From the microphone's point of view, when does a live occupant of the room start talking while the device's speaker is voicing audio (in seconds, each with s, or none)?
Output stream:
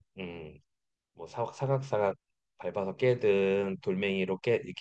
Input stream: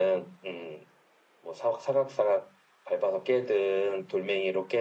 none